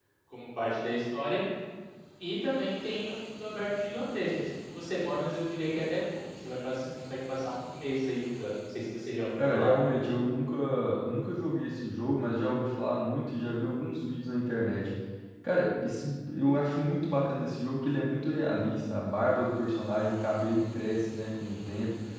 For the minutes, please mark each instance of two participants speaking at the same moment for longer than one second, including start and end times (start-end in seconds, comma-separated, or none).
none